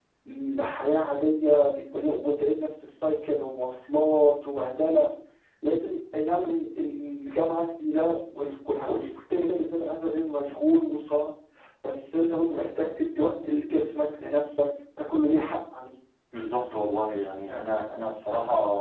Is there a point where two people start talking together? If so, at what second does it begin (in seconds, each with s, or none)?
none